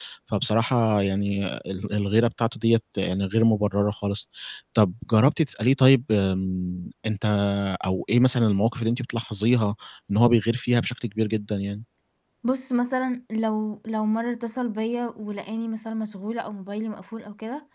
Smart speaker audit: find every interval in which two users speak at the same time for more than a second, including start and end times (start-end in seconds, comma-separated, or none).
none